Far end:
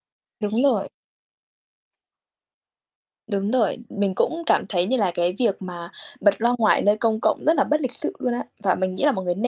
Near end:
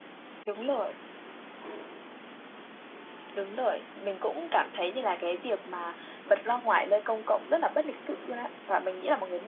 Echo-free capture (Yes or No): No